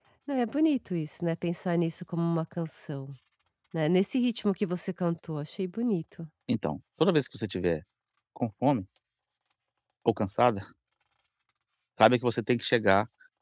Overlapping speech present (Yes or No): No